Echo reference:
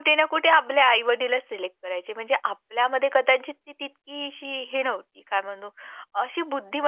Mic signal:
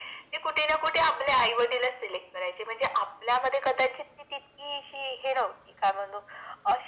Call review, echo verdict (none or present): present